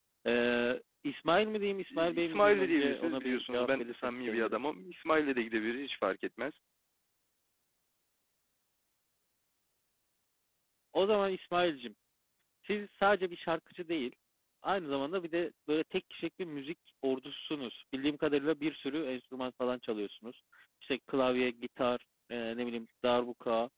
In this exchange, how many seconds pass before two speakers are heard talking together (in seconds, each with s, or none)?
1.9 s